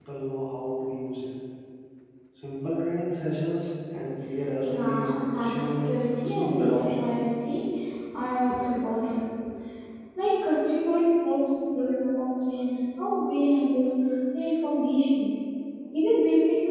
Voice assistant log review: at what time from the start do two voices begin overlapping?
4.6 s

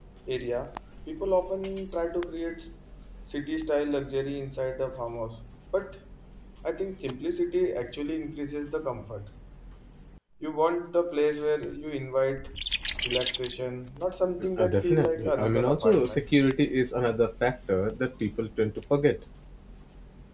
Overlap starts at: 14.4 s

